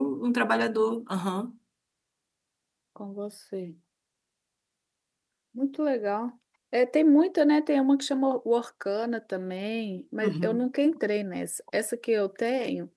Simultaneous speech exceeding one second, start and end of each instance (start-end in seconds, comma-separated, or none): none